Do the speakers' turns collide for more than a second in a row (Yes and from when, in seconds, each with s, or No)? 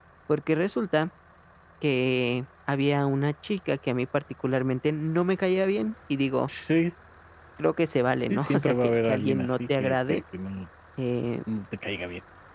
Yes, from 8.3 s